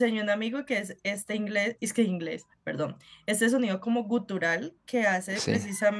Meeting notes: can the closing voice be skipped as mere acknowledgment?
Yes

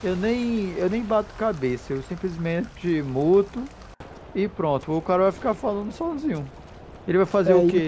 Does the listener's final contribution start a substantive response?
No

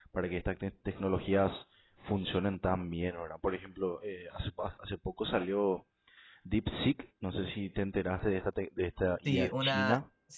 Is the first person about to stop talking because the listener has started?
Yes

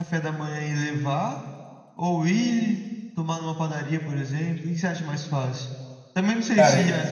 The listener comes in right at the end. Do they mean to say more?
No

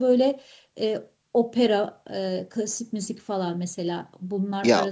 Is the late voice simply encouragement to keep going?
Yes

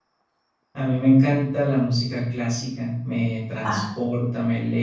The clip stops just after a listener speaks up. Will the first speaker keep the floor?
Yes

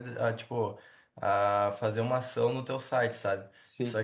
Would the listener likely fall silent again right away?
Yes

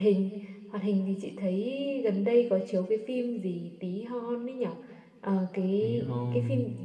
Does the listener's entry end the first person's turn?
No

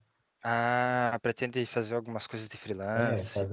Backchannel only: No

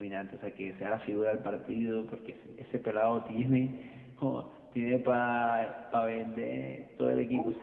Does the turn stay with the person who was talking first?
No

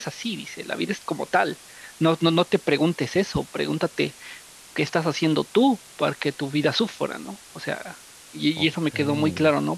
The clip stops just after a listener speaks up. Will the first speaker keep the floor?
Yes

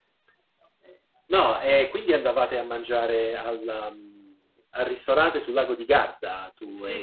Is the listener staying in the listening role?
No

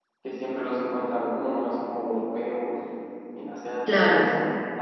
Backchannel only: Yes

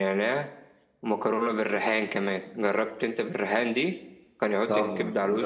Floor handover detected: Yes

